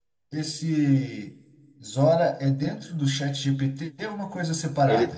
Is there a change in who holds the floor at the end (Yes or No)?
Yes